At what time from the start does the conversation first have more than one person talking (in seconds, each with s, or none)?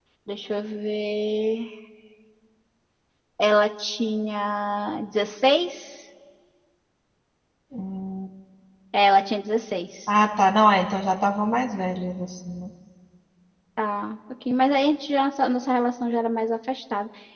none